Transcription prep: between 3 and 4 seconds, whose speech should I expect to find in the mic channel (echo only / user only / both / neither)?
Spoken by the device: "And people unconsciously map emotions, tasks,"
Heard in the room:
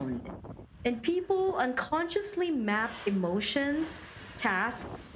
echo only